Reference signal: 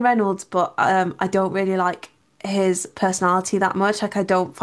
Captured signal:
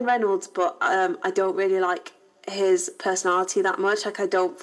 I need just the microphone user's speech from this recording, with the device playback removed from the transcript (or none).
none